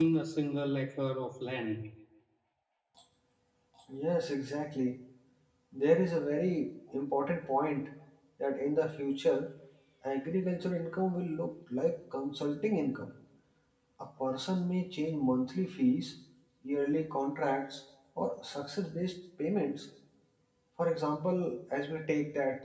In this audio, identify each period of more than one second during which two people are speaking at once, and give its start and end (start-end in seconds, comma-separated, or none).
none